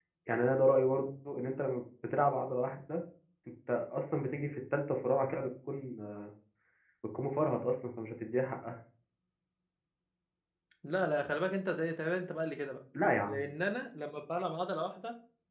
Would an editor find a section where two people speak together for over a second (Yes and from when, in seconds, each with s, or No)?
No